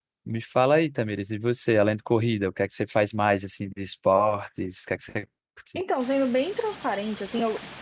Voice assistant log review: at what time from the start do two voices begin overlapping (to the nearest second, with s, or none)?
none